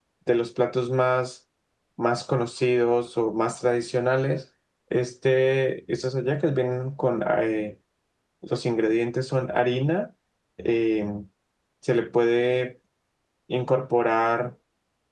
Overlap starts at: none

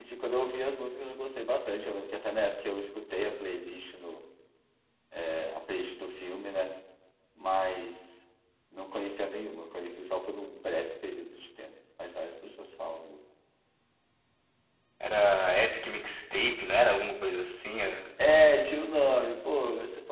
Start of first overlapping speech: none

